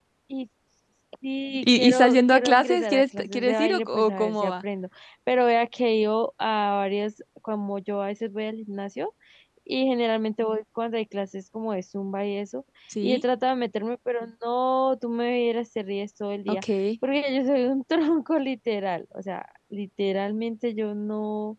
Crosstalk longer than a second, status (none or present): present